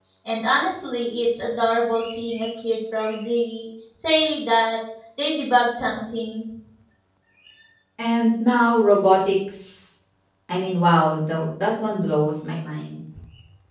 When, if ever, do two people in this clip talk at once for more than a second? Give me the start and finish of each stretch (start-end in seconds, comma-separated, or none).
none